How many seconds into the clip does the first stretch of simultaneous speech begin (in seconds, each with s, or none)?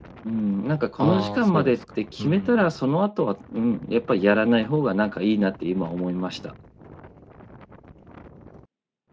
1.0 s